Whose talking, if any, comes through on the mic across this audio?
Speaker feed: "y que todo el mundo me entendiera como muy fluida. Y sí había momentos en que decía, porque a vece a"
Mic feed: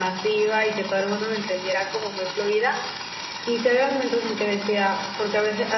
echo only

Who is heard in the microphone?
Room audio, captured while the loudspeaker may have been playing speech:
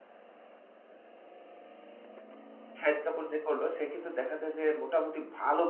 user only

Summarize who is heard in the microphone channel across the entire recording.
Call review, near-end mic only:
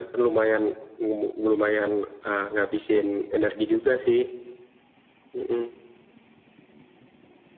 echo only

